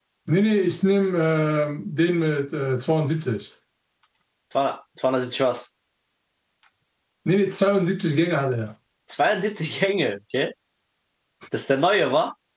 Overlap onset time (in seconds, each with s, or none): none